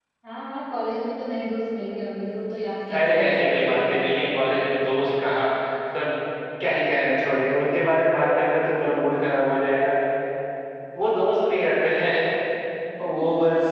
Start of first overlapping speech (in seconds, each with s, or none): 3.0 s